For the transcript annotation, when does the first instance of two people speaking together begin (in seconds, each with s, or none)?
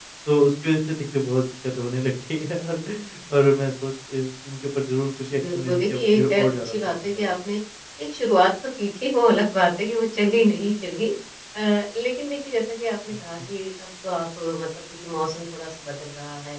5.3 s